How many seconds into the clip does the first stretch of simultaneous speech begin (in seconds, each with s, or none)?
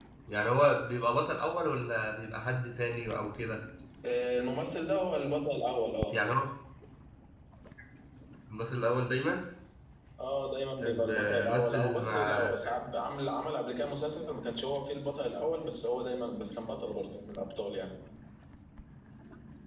10.8 s